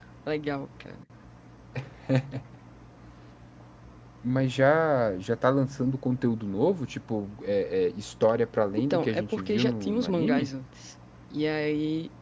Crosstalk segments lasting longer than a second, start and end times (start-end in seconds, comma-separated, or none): 8.8-10.5